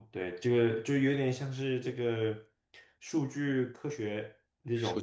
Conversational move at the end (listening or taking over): listening